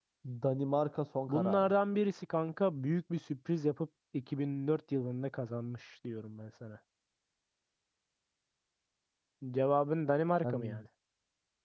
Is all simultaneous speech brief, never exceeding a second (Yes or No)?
Yes